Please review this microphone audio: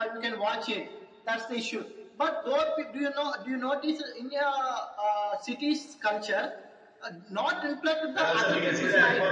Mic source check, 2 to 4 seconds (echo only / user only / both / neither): echo only